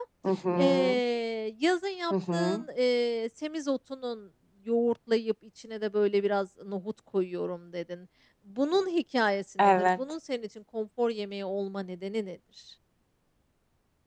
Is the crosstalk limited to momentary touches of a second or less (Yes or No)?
Yes